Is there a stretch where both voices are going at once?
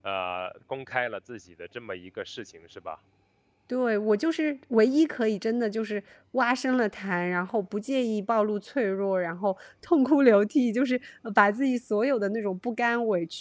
No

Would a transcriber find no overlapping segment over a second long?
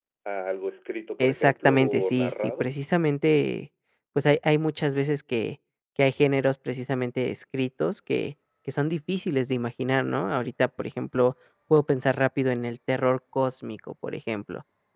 No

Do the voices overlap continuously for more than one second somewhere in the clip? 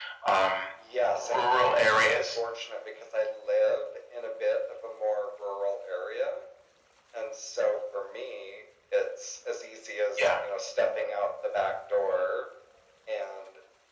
Yes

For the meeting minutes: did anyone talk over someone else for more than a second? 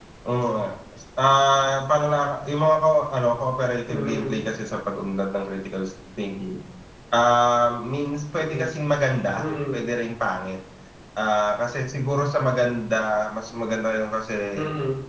No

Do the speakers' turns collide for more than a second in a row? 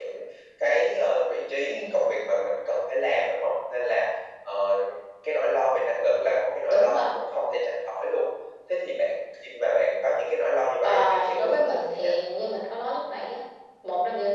Yes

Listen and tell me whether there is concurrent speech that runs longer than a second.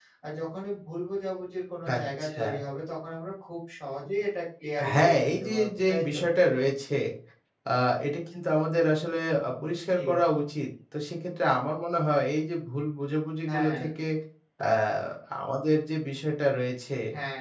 Yes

